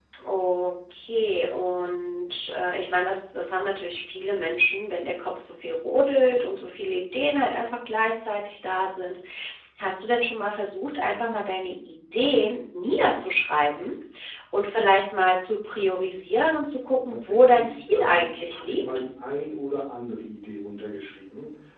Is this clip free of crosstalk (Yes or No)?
No